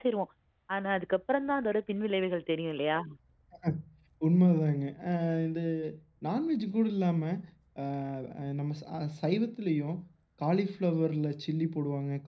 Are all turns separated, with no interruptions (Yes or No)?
Yes